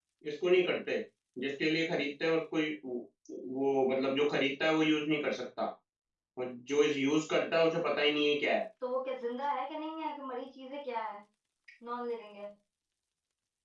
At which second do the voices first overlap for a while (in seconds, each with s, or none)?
none